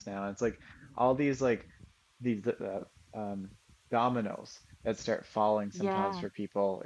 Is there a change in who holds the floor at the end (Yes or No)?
No